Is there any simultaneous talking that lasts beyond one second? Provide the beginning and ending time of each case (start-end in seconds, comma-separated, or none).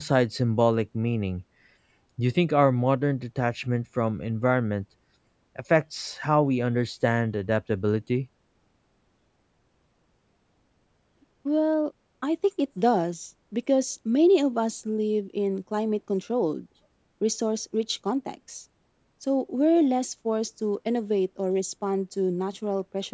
none